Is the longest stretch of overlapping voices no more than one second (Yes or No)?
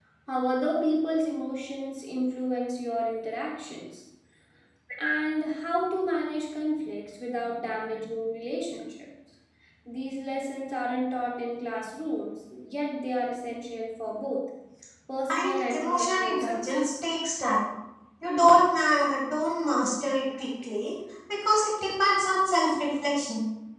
No